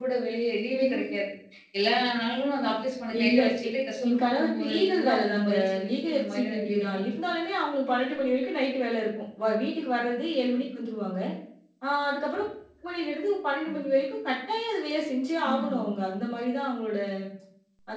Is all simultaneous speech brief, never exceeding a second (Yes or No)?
No